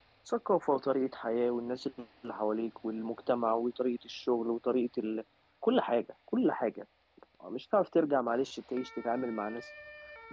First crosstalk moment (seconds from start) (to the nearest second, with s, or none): none